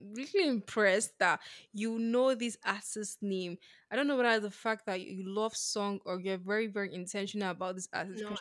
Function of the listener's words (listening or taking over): listening